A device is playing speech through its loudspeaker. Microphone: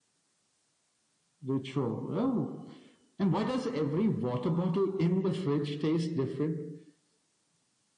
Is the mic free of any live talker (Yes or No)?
Yes